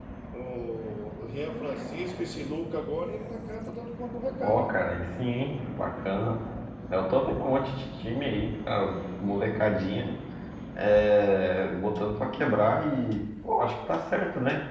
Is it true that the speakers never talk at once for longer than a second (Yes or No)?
Yes